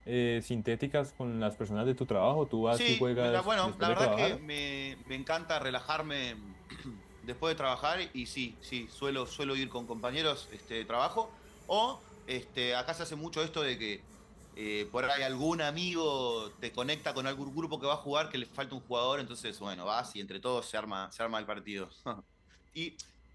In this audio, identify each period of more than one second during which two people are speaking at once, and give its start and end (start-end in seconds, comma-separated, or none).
2.7-4.4